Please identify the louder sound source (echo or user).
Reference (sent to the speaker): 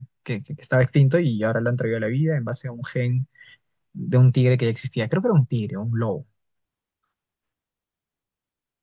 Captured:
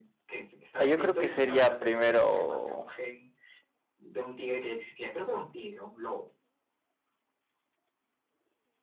user